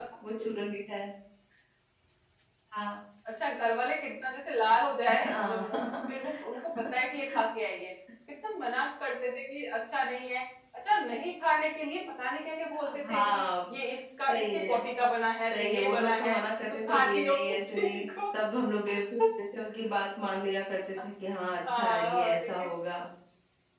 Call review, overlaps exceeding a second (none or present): present